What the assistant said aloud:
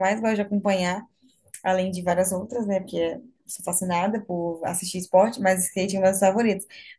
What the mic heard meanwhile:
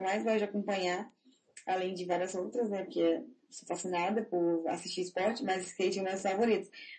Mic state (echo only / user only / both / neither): echo only